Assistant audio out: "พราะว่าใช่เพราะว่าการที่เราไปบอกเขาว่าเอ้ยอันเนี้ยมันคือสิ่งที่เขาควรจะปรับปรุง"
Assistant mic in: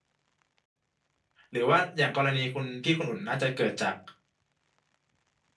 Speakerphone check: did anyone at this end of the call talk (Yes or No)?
Yes